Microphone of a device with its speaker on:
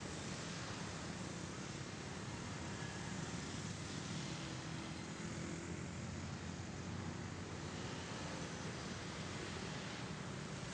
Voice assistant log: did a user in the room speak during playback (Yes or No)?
No